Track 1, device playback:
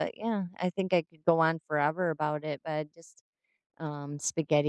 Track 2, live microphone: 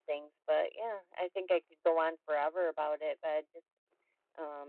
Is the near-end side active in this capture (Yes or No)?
No